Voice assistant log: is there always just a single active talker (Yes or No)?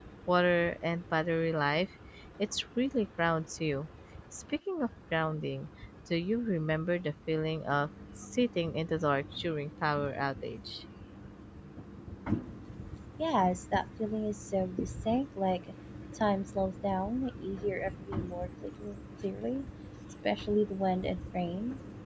Yes